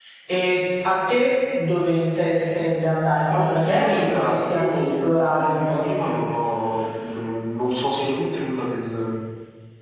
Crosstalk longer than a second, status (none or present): present